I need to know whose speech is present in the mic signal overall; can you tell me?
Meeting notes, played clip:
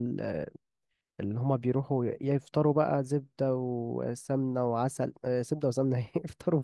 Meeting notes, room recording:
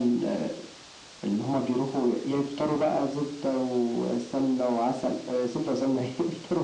echo only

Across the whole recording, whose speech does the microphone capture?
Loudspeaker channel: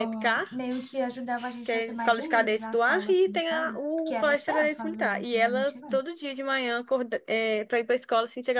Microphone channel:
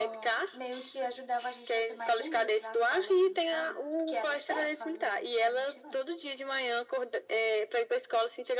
echo only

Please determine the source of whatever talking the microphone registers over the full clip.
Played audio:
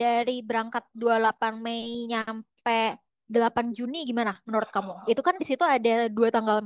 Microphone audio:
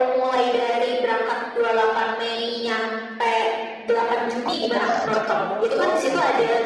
both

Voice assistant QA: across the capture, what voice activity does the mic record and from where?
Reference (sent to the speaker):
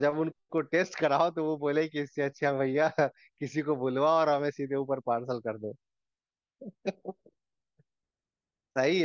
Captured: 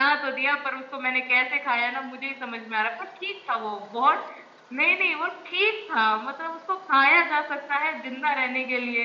user only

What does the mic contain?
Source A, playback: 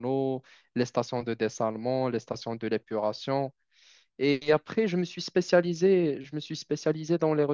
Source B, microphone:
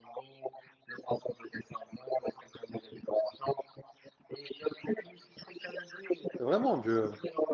both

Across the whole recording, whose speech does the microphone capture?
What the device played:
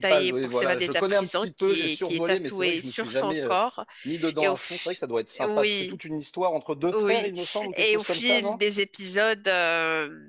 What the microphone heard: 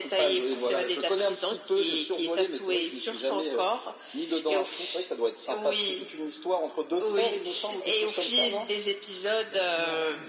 both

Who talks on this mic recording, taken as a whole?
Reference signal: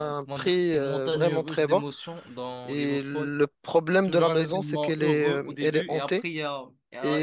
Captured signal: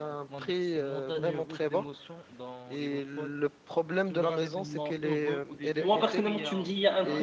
both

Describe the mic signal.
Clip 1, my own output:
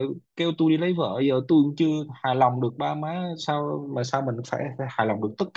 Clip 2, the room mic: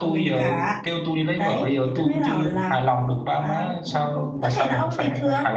both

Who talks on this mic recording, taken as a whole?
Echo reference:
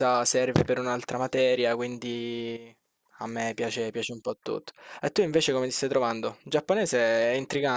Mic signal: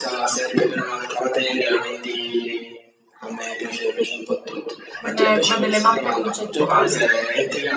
both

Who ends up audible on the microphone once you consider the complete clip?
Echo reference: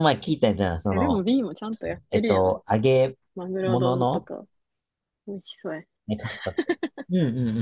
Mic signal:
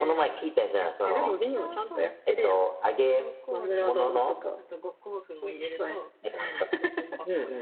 both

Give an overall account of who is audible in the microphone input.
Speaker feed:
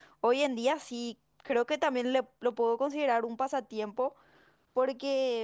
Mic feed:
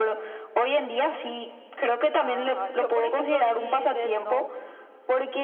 both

